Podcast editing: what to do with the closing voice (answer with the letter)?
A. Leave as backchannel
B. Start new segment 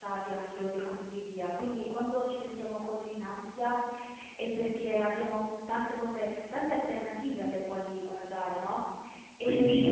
B